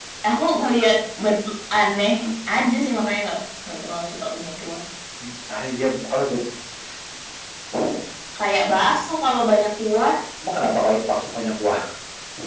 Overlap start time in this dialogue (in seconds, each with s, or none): none